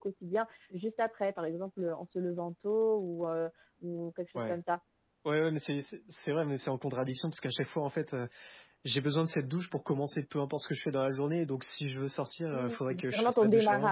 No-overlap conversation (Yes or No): No